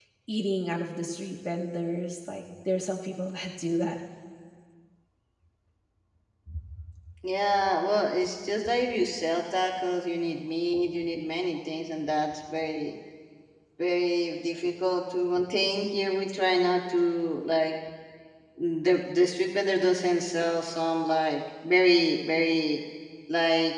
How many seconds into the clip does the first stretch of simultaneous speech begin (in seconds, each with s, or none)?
none